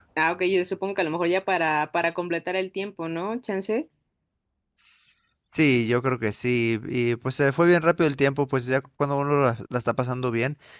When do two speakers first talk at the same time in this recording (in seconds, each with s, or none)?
none